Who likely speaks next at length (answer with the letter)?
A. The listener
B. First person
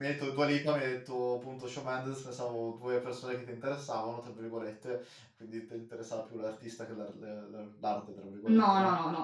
A